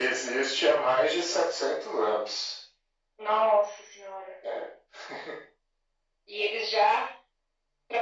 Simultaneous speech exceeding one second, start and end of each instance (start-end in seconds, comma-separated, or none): none